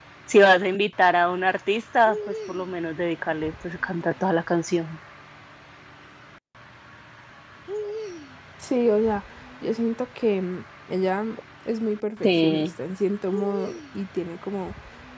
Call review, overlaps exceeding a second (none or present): none